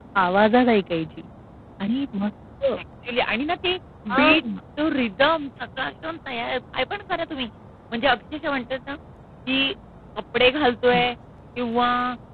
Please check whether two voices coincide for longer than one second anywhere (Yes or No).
No